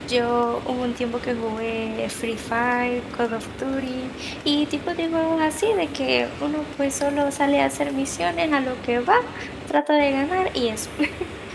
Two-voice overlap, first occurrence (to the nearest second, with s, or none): none